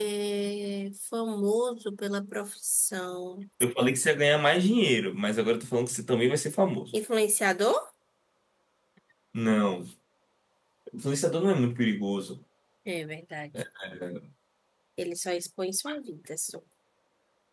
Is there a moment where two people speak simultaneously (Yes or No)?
No